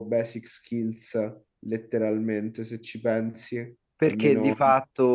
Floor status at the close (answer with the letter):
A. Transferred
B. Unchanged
A